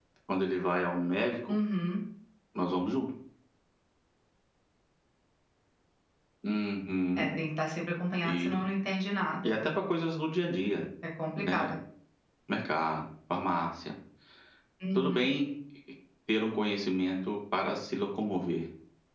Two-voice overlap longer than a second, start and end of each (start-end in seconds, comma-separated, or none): none